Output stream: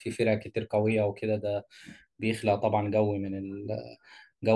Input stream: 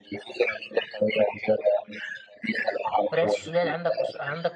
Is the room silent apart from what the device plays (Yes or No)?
No